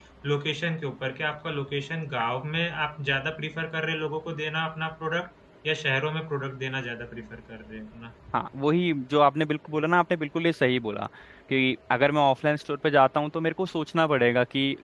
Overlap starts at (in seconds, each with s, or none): none